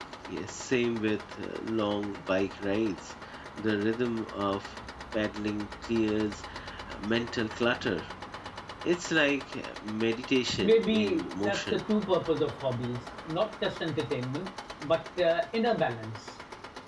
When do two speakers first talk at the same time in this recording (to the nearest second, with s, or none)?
11 s